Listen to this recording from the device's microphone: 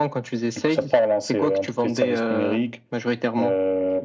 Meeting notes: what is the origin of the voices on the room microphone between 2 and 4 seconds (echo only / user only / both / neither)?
echo only